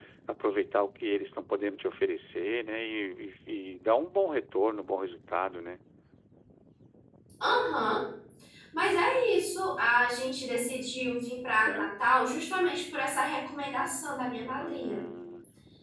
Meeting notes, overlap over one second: none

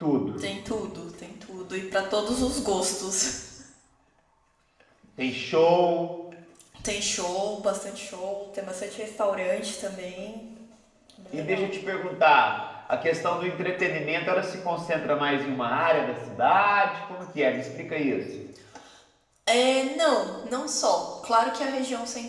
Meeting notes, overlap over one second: none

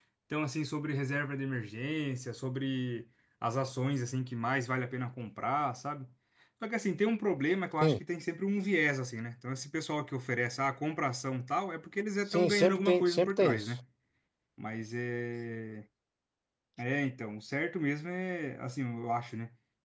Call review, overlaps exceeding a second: present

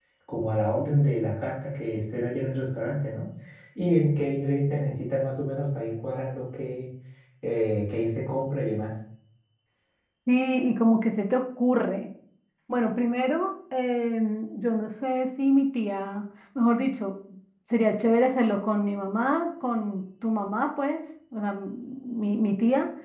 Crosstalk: none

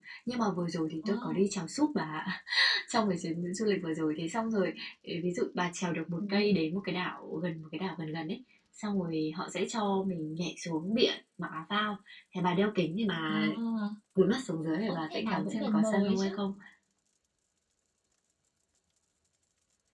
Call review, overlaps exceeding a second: present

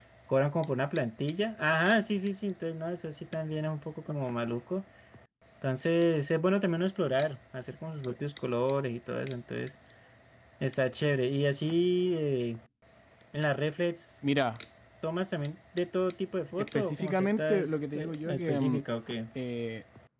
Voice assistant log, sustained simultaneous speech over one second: present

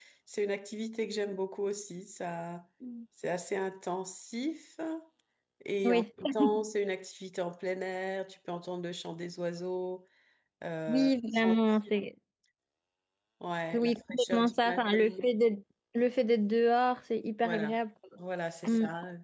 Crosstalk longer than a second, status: present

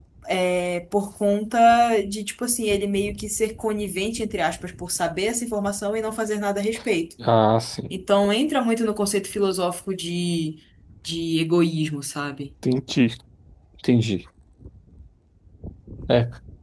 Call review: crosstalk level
none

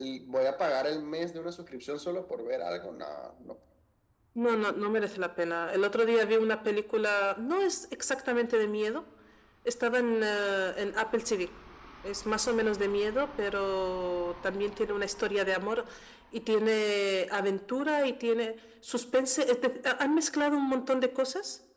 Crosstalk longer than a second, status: none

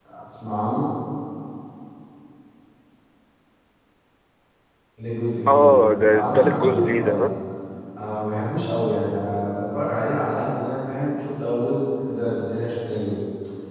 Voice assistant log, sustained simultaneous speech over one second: present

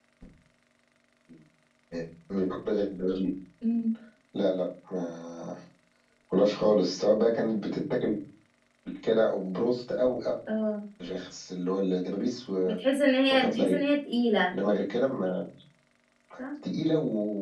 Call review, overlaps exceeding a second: none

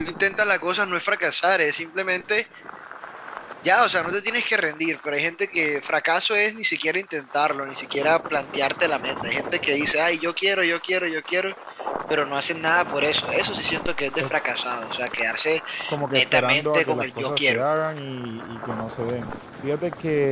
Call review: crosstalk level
present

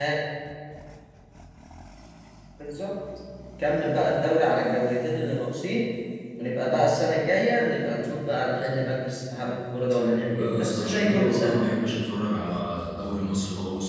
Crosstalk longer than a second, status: present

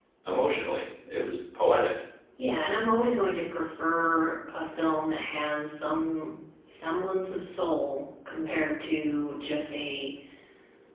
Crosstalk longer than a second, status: none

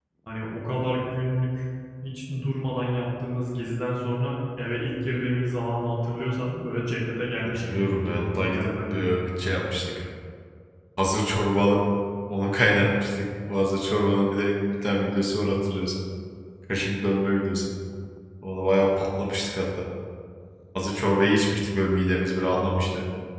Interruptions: present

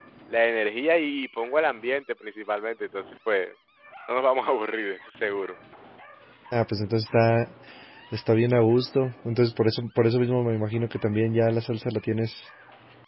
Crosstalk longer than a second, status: none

